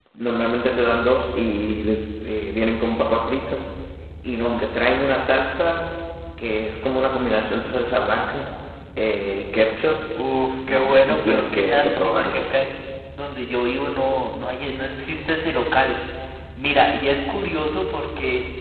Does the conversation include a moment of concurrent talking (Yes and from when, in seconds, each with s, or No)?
Yes, from 10.7 s